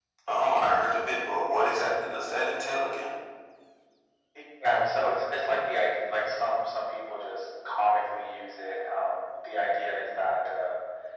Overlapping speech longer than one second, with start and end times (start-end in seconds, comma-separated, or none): none